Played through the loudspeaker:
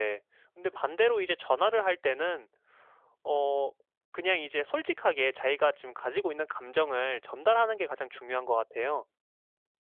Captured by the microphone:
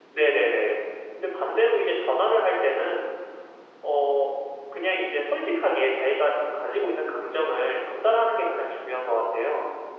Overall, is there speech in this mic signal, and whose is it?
echo only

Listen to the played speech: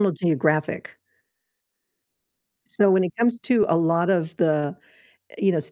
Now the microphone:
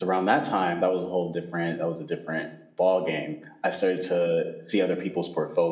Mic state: user only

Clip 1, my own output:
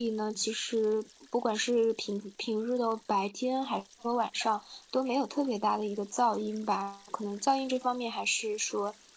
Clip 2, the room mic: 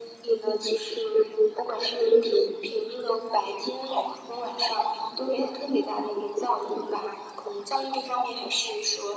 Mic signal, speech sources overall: echo only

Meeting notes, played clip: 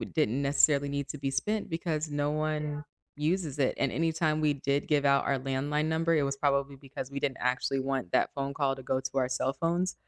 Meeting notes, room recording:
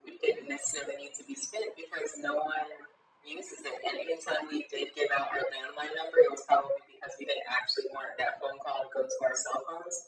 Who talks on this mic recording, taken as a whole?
echo only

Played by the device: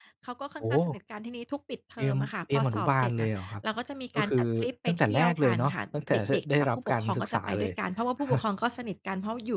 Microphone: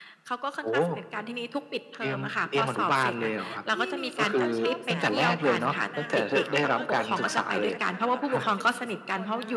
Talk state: both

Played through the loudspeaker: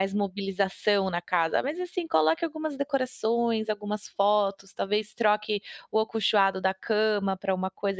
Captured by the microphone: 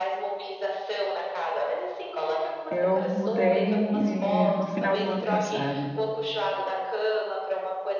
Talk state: both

